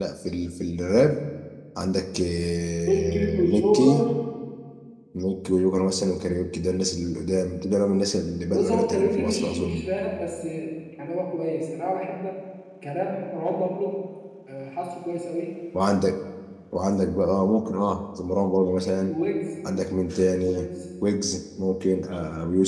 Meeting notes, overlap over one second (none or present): present